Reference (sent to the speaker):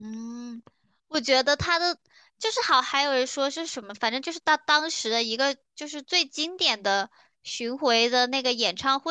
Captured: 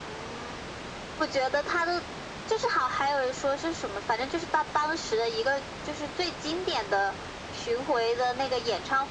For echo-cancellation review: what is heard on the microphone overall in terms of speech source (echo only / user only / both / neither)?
echo only